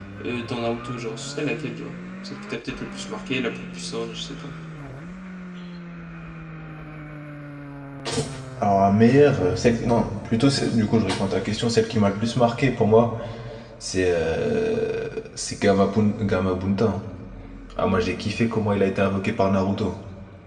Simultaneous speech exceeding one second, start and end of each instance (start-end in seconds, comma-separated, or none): none